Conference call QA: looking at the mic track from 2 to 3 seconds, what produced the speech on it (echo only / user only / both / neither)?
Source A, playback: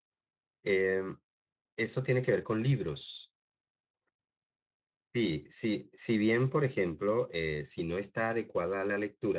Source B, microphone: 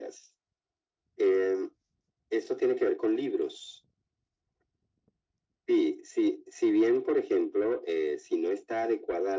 echo only